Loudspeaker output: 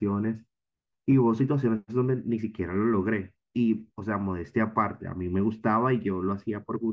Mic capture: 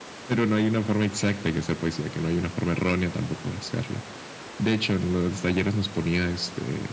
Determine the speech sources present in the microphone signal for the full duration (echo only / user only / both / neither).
user only